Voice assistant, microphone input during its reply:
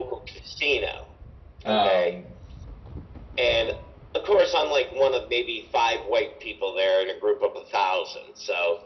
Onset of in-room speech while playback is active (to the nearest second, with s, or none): 2 s